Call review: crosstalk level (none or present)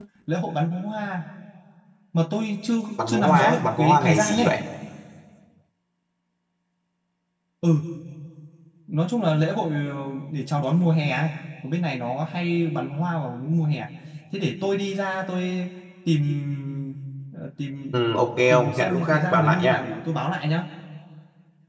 present